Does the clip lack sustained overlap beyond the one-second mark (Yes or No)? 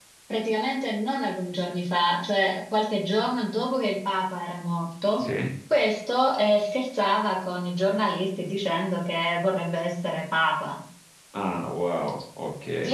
Yes